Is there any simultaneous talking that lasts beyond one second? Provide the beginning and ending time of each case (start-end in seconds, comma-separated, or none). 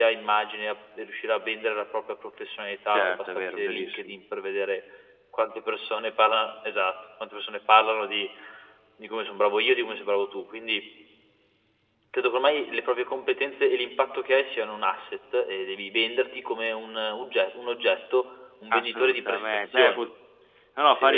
2.9-4.2, 18.7-20.0